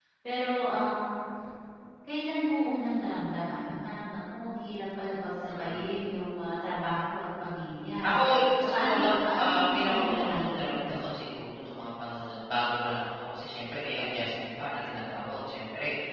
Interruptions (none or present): present